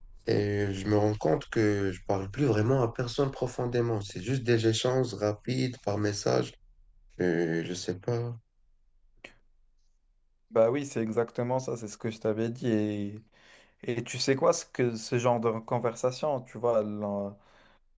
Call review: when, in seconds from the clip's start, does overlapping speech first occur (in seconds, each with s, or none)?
none